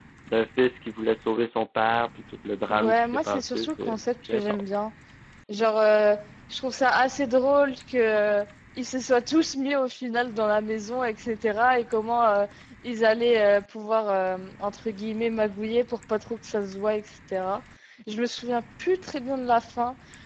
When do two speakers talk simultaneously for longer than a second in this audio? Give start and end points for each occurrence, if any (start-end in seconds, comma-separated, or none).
2.7-4.8